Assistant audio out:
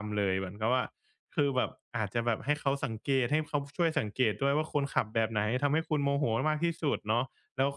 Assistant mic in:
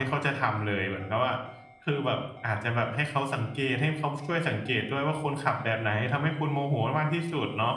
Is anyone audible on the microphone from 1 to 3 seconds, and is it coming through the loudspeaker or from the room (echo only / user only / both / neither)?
echo only